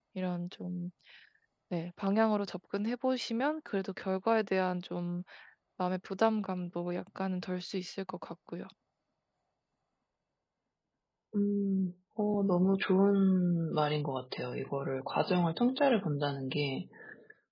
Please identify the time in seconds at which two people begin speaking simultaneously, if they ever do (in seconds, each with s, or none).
none